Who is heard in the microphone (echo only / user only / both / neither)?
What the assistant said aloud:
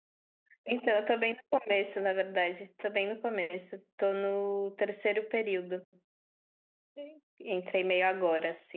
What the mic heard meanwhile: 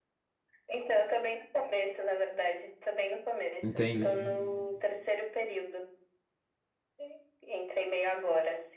both